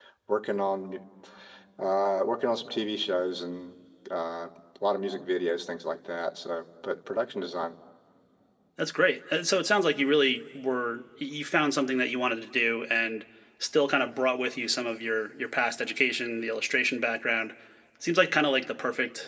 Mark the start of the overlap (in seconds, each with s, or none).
none